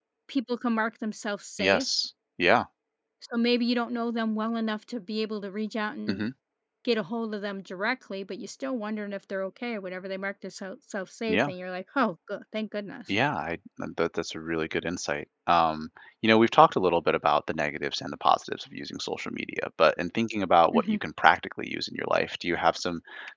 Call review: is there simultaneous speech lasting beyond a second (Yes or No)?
No